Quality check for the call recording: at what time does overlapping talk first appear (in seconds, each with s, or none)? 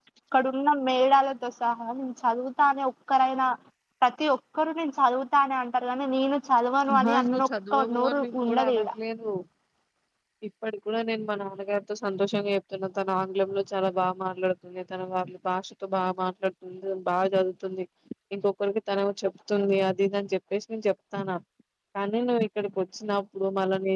6.8 s